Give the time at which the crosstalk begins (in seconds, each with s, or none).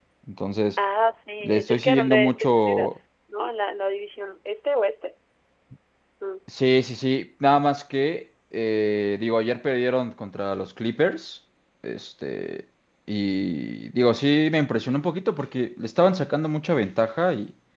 1.4 s